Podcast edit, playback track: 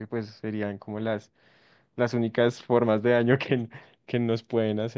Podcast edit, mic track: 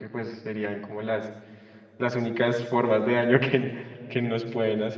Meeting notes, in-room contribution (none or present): none